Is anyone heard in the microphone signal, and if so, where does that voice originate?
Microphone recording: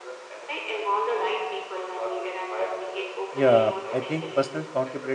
both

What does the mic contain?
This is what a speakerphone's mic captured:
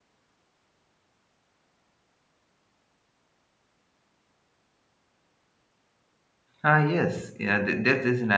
user only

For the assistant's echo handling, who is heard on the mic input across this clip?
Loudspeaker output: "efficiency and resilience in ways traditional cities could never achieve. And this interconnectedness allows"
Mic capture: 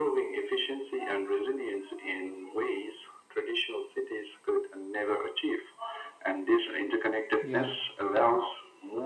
both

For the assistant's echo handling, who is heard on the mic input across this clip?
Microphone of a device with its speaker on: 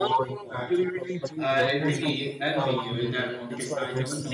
both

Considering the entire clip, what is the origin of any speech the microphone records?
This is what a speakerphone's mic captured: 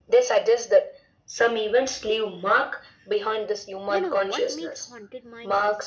both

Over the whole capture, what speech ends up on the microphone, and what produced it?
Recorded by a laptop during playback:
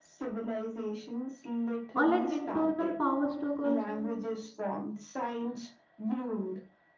both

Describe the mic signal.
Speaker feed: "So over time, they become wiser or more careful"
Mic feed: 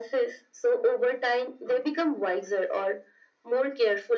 echo only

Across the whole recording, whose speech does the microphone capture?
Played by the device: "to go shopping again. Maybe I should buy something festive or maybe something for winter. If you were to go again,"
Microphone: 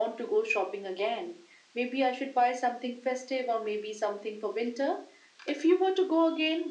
echo only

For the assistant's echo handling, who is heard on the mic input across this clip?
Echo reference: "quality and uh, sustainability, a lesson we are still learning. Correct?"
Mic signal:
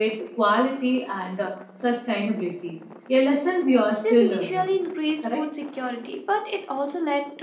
both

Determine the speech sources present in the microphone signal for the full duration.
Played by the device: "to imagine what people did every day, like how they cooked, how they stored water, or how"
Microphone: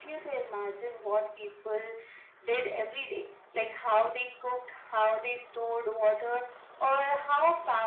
echo only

